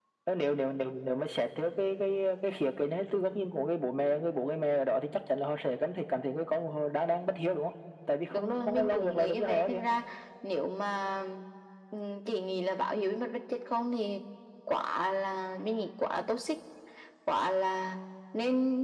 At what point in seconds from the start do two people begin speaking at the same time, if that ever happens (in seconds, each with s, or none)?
8.3 s